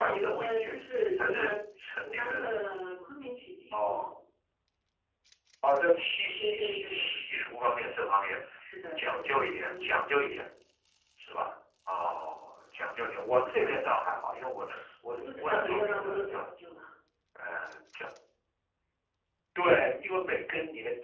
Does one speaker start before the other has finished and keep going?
Yes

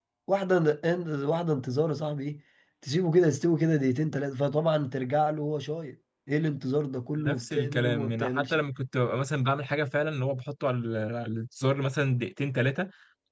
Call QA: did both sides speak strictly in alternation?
No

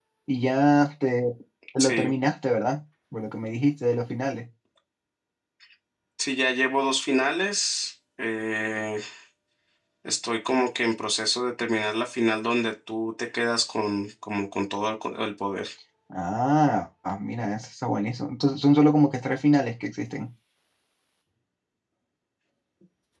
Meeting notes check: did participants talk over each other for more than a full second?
No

